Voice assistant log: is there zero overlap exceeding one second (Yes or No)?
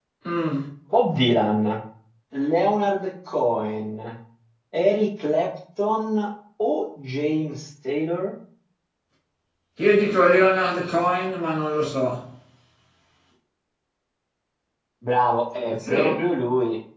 Yes